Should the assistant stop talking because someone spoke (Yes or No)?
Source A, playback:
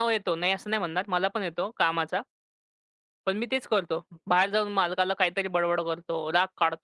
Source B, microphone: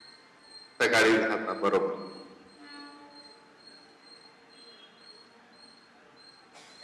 Yes